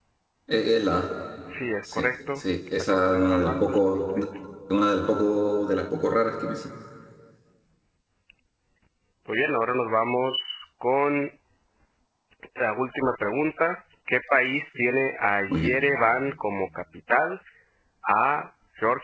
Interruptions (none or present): present